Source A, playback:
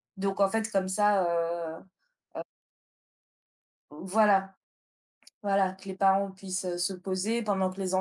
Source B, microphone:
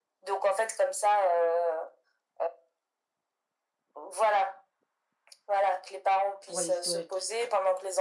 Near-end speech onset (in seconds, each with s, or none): 6.4 s